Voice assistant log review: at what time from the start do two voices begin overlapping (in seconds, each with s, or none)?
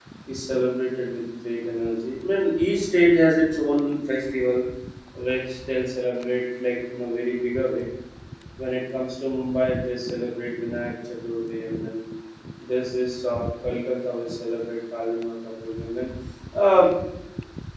none